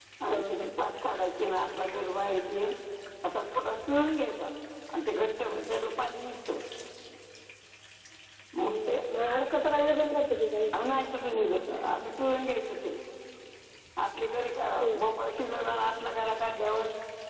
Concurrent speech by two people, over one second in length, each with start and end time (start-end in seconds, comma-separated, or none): none